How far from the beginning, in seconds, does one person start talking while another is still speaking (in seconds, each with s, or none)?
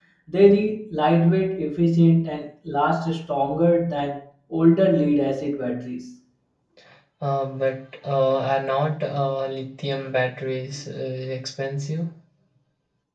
none